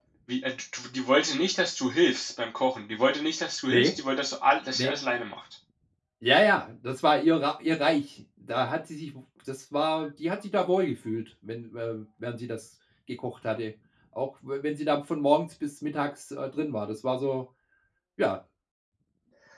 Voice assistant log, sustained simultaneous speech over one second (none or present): none